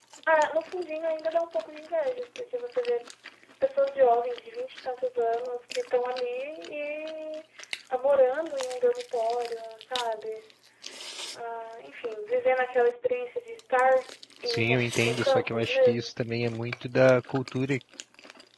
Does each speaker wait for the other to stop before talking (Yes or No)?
No